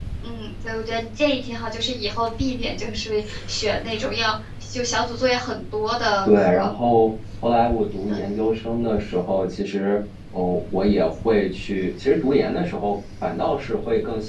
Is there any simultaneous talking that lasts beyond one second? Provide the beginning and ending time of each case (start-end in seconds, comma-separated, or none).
none